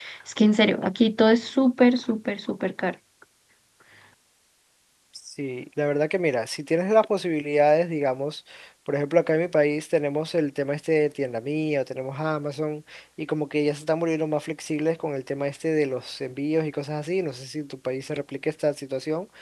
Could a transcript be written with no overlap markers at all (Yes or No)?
Yes